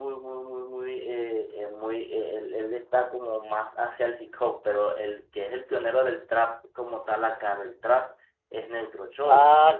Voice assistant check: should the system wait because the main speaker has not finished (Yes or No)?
No